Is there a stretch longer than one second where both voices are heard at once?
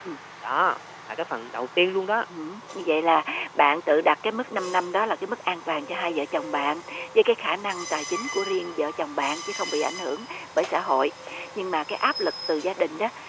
No

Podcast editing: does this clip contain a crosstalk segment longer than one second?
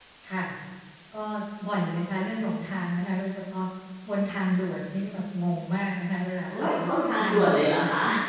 Yes, from 6.5 s

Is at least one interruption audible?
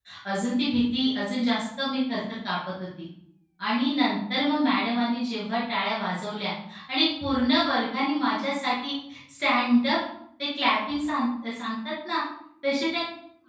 No

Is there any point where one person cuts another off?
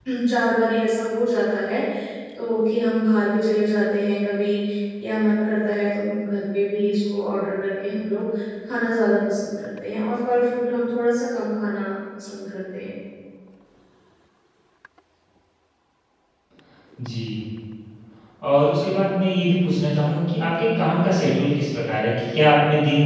No

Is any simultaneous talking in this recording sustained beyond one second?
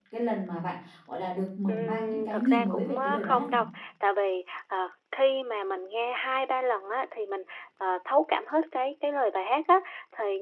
Yes, from 1.7 s

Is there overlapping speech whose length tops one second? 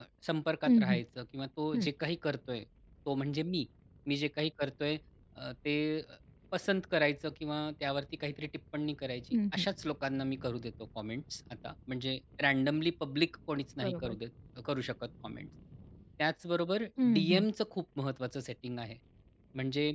No

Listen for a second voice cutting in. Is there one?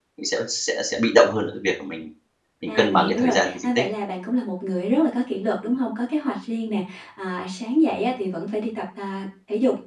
Yes, from 2.7 s

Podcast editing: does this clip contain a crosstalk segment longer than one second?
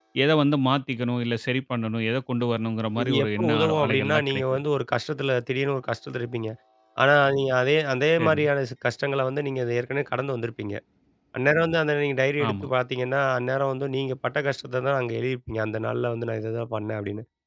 Yes, from 3.0 s

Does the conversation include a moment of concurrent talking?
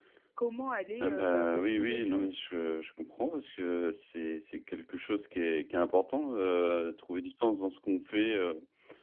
Yes, from 1.0 s

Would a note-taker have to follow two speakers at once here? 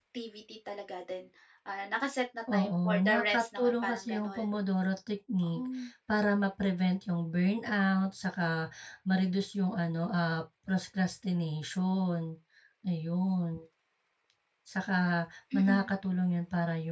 Yes, from 2.5 s

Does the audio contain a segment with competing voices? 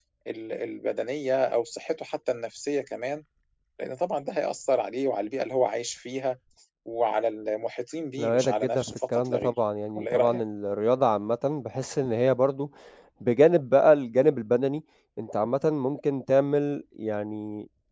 Yes, from 8.2 s

